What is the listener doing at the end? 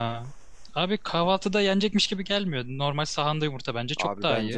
taking over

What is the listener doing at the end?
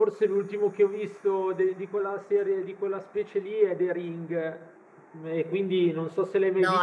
taking over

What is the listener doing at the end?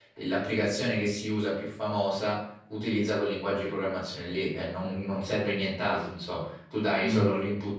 listening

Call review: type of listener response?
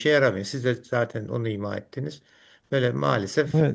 taking over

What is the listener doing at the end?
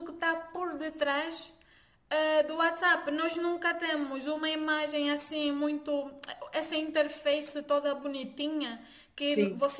listening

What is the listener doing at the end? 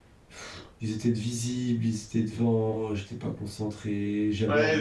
taking over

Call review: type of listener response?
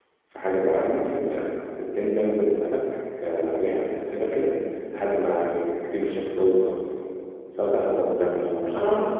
listening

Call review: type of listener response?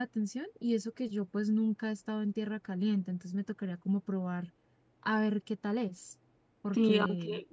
taking over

